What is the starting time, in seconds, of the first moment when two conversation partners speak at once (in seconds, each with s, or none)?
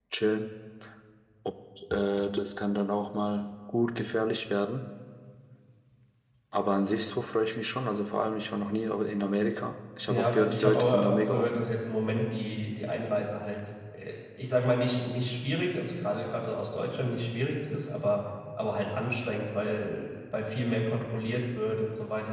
10.1 s